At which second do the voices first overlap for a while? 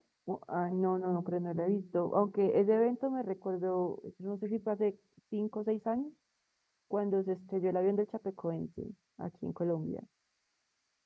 none

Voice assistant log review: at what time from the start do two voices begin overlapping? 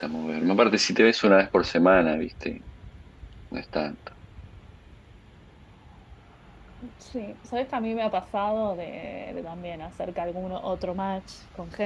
none

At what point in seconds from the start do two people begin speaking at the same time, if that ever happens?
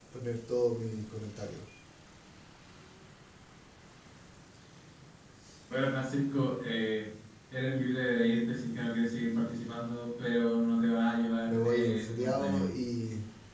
11.5 s

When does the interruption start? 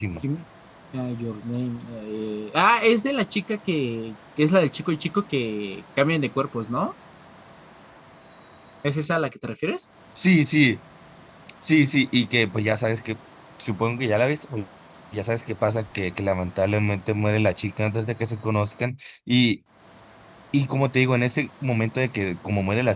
none

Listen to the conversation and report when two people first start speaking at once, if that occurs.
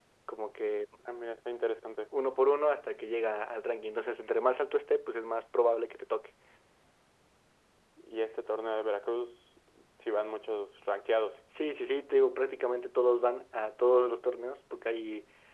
none

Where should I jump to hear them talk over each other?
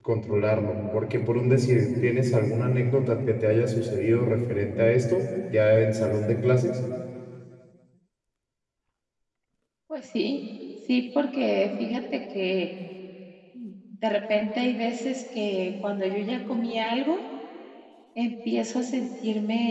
none

